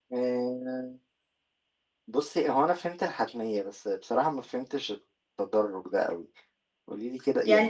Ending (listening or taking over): taking over